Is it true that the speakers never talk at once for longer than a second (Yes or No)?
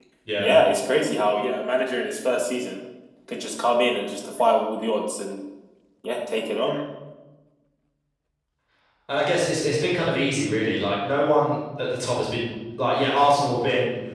Yes